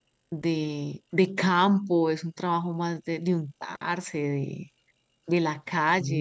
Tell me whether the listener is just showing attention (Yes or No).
Yes